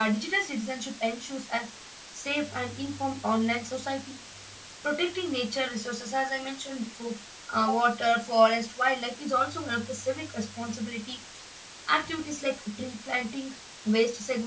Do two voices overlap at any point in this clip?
No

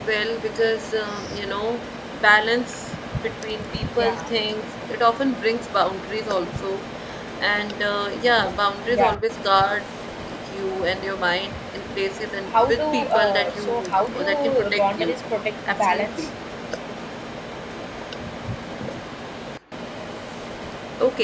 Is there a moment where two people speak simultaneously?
Yes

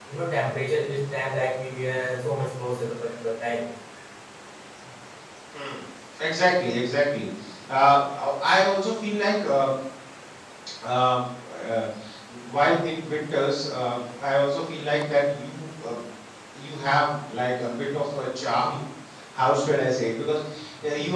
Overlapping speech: No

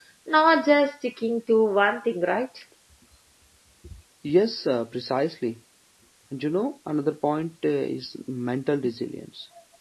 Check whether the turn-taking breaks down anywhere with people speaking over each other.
No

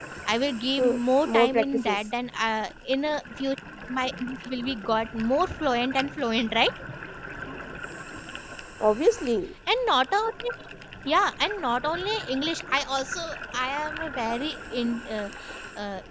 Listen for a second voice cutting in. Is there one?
Yes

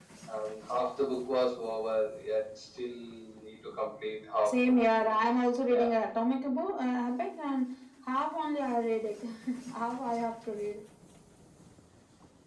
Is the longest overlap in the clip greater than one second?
No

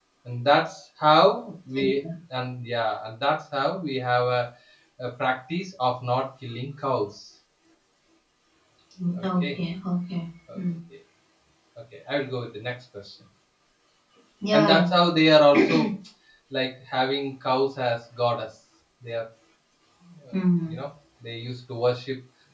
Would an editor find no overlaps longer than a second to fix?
Yes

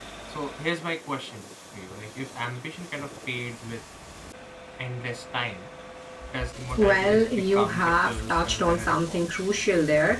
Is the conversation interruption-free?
No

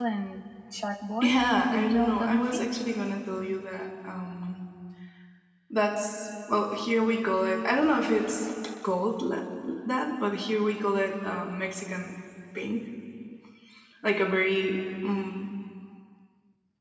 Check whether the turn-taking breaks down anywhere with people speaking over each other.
Yes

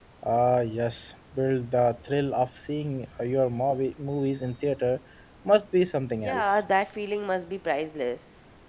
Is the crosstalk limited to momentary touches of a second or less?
Yes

